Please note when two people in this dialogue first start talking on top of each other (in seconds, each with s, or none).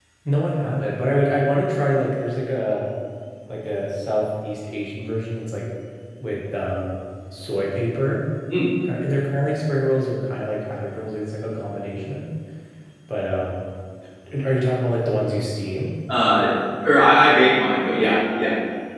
none